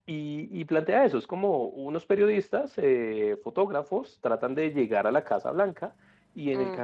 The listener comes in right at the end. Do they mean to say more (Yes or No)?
No